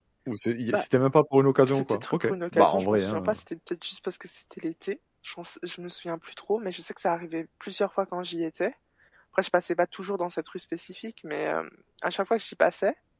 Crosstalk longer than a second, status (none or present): present